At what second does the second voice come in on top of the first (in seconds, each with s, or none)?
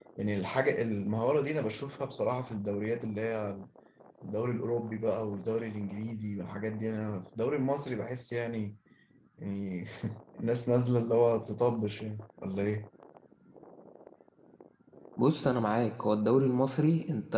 none